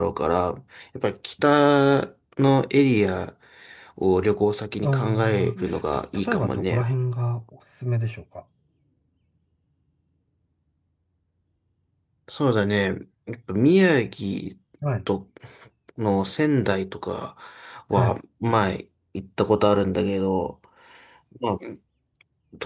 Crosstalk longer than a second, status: present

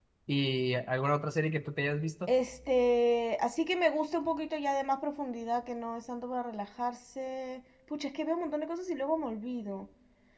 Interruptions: none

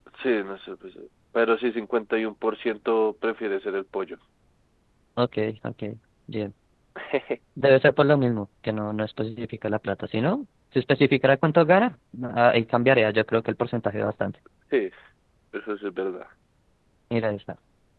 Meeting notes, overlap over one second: none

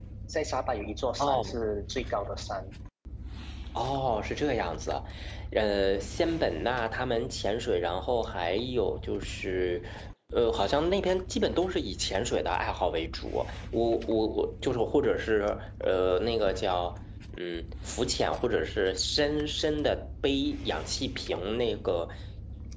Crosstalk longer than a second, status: none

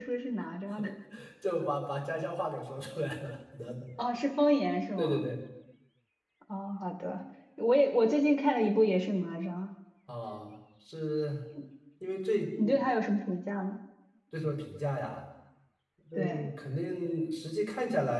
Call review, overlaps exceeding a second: none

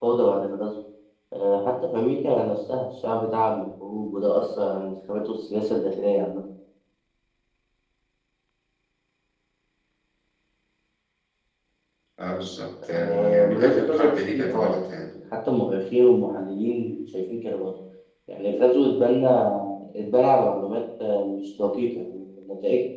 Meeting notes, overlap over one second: present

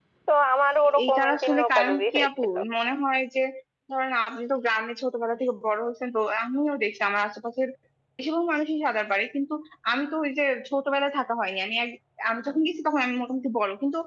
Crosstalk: present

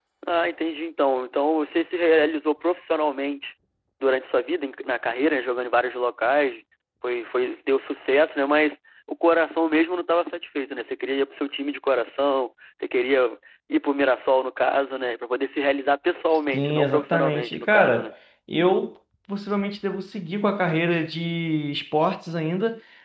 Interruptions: present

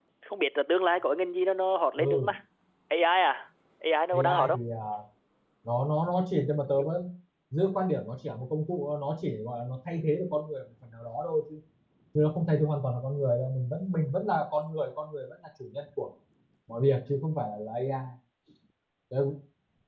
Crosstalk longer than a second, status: none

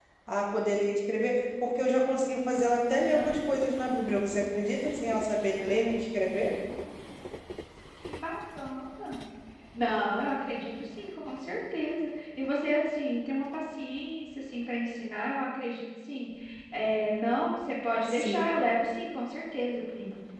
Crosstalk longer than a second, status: none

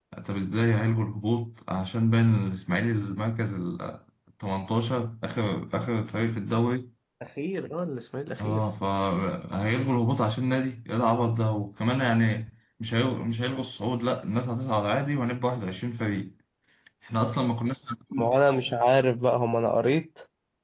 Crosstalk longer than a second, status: none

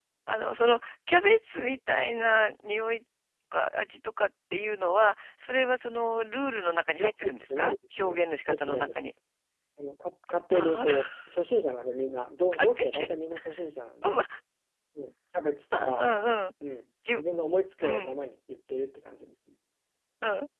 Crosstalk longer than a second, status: present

